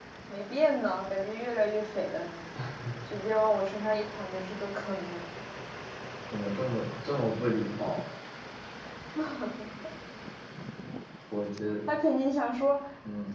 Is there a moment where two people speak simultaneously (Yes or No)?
No